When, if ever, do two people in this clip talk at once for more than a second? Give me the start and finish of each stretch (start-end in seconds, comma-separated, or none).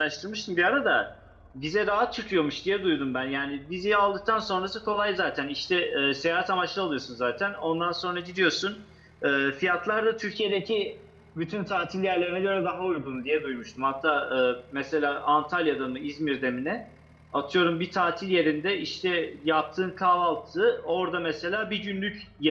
none